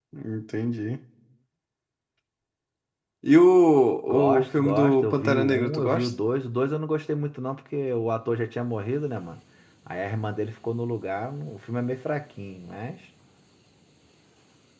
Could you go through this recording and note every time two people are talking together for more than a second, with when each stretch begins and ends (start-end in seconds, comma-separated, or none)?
4.1-6.1